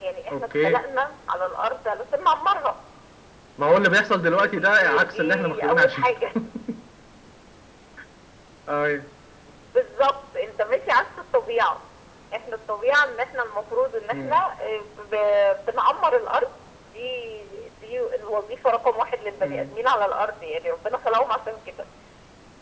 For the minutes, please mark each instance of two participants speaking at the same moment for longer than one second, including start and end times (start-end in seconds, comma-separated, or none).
4.3-6.1